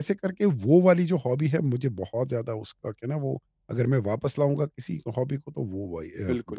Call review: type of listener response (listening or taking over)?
taking over